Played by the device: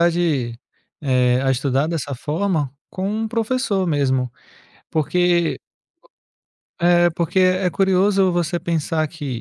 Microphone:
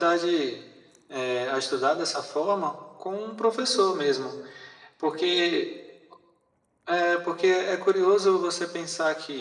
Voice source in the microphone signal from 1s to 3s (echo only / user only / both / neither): echo only